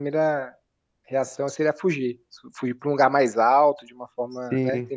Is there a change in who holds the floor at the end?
No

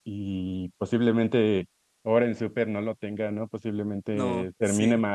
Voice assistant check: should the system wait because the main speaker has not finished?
Yes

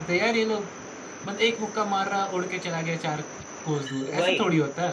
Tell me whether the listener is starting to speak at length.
Yes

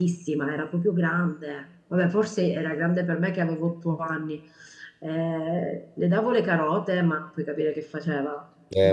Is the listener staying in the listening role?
No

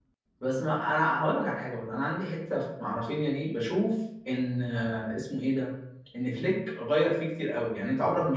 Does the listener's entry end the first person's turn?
No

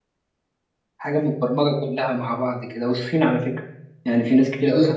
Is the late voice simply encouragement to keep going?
No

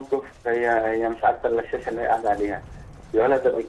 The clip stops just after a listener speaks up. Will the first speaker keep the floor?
Yes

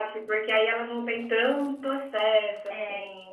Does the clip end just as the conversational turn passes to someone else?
Yes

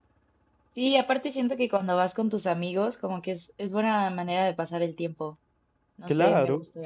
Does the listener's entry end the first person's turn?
Yes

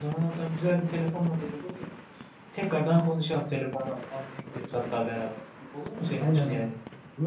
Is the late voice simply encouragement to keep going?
No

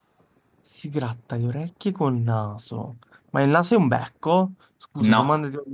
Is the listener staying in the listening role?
Yes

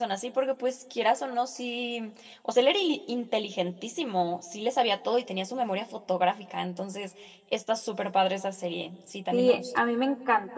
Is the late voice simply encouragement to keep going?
No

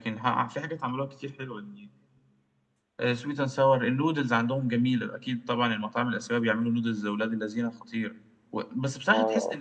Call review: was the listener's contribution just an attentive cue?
Yes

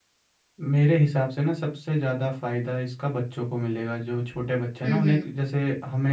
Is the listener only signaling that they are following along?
Yes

